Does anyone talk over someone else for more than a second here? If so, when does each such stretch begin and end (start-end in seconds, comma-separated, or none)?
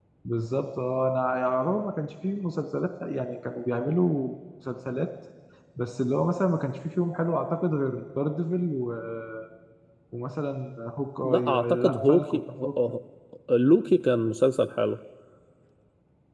11.2-12.7